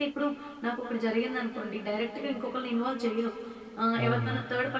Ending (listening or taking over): listening